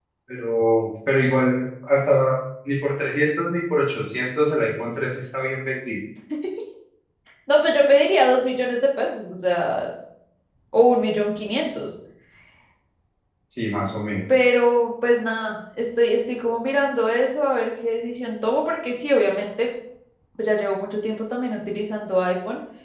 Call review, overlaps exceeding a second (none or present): none